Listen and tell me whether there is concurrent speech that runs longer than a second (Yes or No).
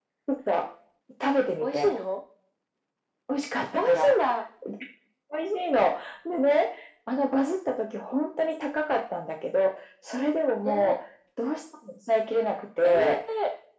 No